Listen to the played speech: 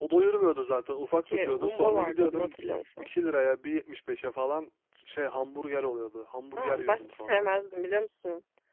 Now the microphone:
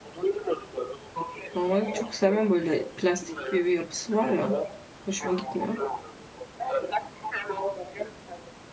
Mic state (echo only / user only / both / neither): both